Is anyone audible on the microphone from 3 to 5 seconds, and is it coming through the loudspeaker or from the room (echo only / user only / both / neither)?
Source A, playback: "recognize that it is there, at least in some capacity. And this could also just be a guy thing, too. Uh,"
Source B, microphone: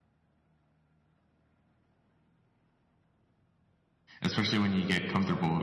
user only